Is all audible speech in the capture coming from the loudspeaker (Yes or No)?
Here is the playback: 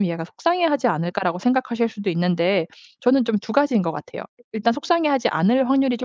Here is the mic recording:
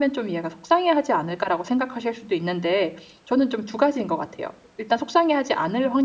Yes